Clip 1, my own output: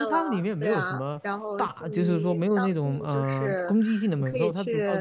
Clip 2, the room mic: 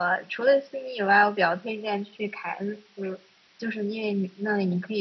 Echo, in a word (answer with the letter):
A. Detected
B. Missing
B